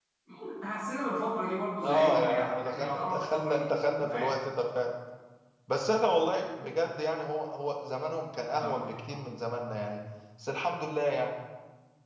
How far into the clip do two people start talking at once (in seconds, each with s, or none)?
1.8 s